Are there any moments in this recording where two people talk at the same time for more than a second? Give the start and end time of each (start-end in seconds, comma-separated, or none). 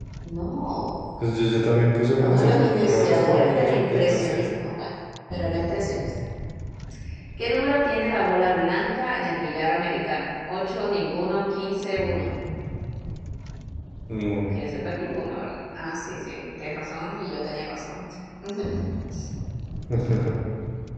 2.2-4.4